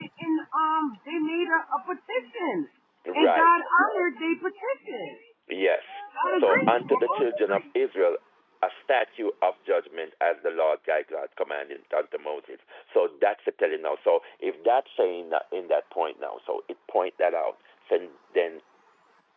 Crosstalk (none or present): present